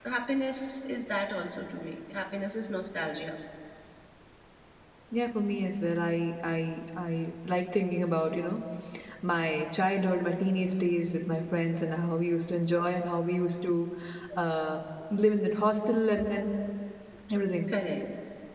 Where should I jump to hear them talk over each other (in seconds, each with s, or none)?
none